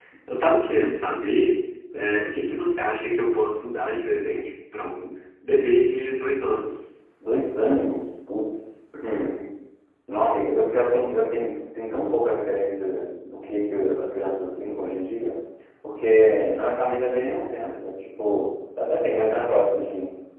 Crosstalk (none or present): none